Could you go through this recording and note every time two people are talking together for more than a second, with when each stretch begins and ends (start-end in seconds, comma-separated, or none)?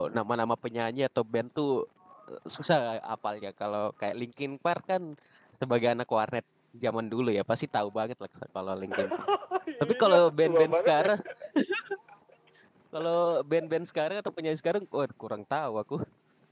9.8-11.1